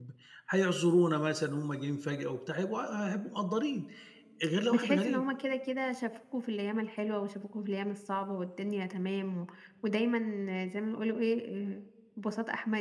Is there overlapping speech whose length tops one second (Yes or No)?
No